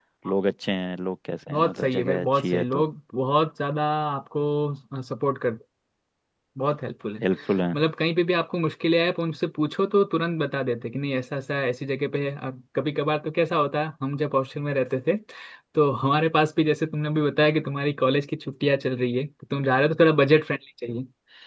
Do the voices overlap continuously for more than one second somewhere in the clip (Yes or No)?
Yes